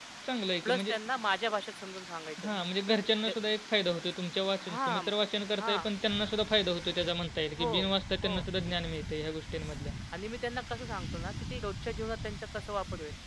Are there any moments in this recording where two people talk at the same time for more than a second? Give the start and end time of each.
none

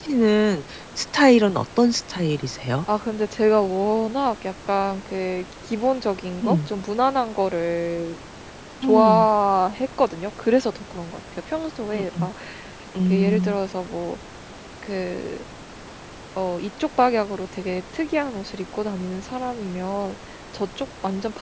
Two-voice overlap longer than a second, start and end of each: none

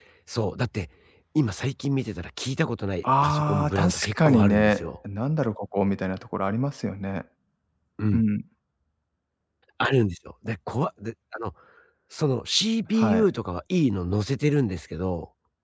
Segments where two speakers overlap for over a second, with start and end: 3.0-4.9

